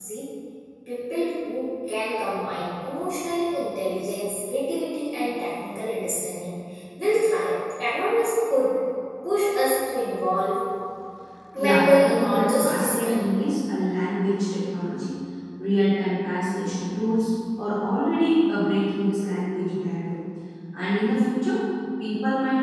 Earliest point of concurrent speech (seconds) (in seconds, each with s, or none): 11.6 s